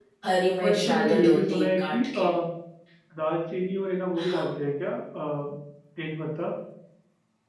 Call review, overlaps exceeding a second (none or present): present